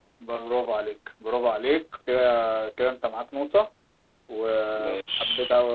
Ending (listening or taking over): listening